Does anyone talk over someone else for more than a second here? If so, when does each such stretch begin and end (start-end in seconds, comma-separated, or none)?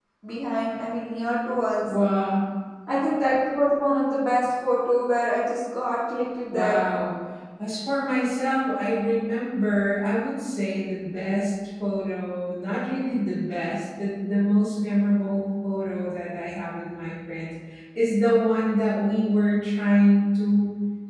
none